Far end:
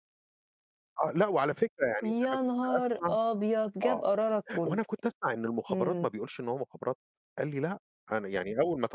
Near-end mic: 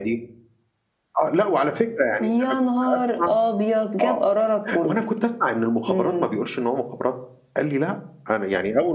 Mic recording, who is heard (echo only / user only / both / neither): echo only